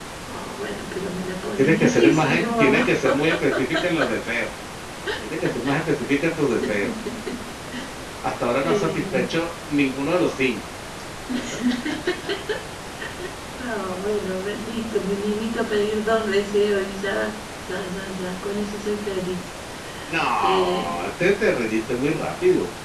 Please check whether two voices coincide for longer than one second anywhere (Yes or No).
Yes